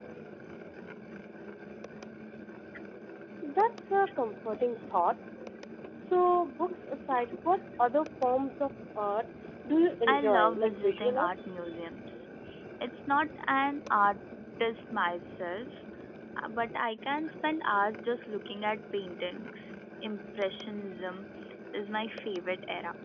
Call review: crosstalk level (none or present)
present